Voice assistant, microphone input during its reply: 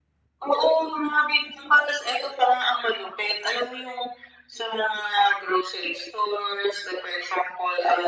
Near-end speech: none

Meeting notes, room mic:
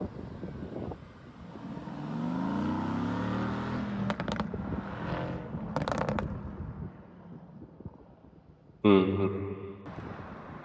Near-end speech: present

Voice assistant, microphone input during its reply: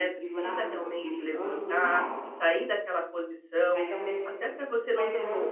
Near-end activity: present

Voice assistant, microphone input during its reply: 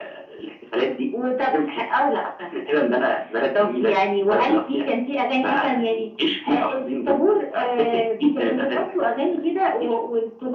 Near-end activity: none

